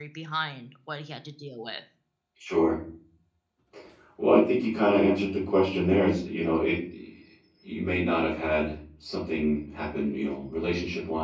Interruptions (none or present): none